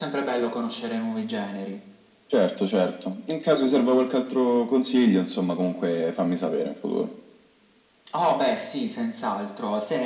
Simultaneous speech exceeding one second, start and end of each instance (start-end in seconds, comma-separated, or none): none